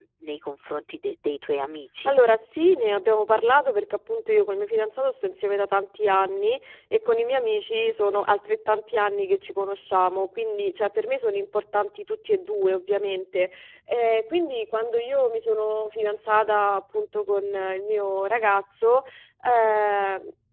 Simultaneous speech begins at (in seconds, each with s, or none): none